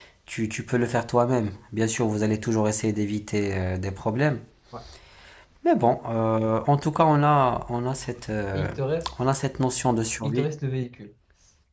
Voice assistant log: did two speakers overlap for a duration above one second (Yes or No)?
No